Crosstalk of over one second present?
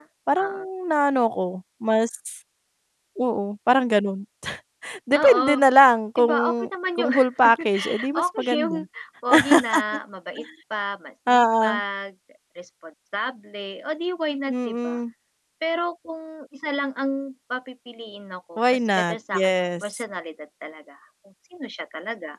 Yes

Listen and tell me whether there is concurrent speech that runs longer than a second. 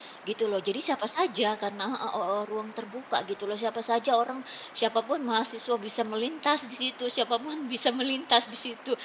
No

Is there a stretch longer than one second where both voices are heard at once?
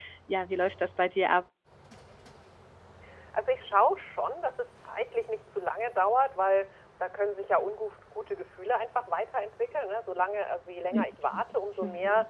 No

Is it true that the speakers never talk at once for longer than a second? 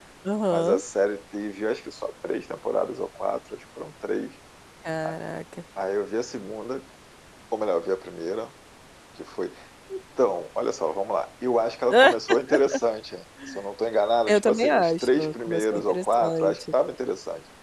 No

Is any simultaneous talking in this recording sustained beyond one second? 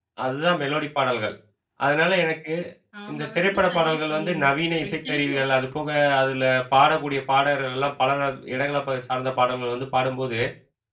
Yes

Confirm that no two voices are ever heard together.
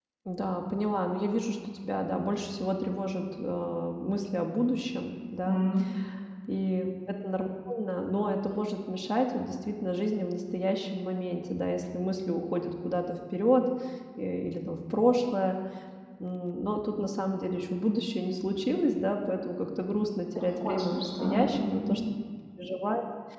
No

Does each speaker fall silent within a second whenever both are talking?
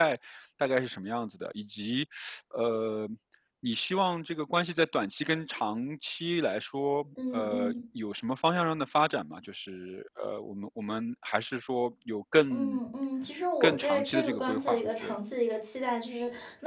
No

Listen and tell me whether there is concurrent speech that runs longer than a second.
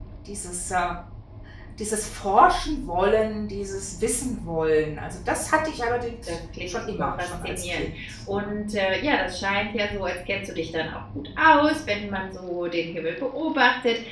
Yes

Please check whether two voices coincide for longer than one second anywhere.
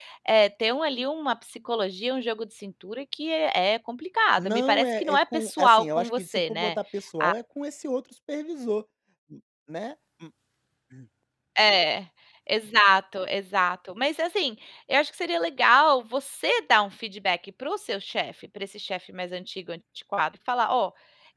Yes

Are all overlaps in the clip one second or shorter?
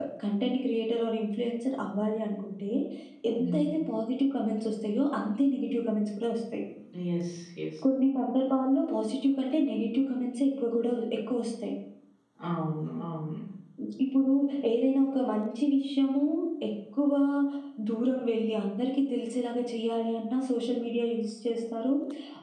Yes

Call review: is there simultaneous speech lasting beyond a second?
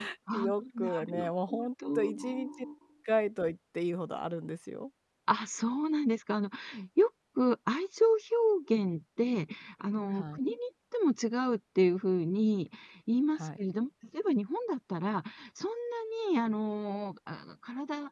Yes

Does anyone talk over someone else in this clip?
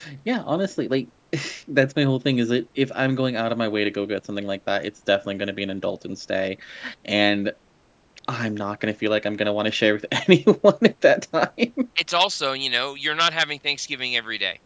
No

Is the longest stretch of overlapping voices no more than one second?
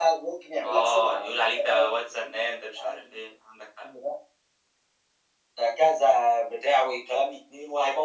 No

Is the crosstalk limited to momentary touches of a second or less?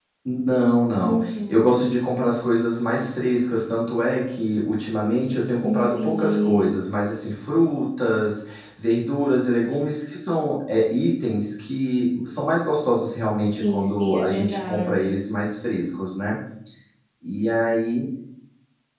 No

